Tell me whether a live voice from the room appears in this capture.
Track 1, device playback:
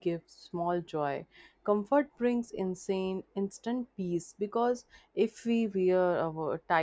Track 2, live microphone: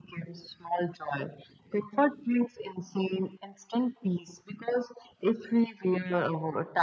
No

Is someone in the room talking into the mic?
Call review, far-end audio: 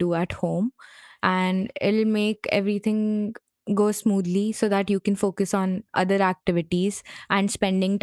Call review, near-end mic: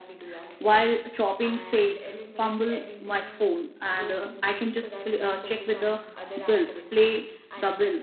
Yes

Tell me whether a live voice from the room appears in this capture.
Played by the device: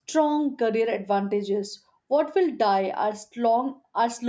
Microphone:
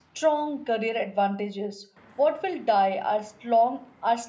No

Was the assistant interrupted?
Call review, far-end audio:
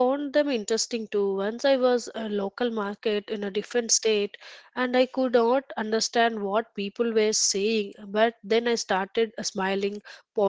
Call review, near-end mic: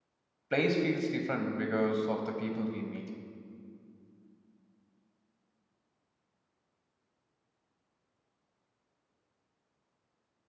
Yes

